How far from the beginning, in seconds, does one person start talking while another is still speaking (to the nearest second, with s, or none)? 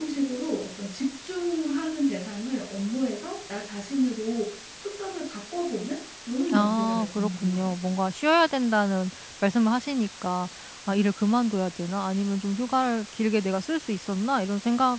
6 s